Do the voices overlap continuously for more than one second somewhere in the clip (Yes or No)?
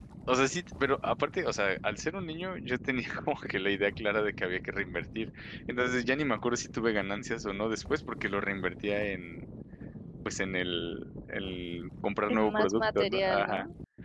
Yes